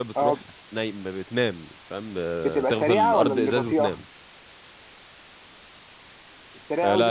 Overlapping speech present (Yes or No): Yes